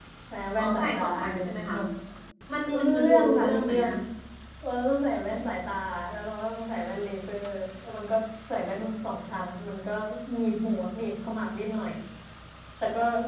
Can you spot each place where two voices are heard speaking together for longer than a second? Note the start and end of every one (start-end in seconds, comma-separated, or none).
0.6-1.8, 2.7-3.9